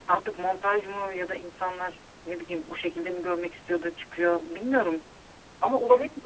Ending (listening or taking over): taking over